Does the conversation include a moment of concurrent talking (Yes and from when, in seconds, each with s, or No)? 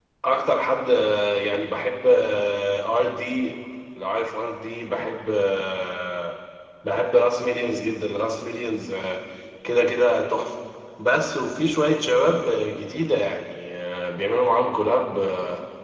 No